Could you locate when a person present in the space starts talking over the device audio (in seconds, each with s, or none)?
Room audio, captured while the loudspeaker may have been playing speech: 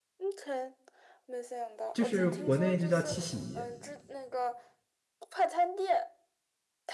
1.9 s